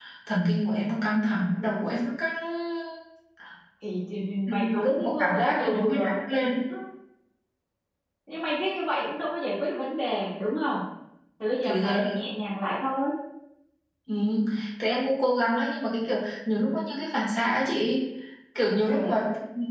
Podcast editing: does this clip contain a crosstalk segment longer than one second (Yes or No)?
Yes